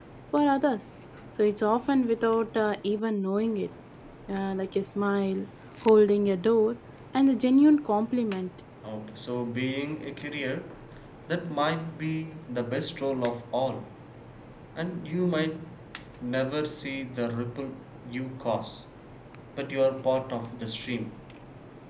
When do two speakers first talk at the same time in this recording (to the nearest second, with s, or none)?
none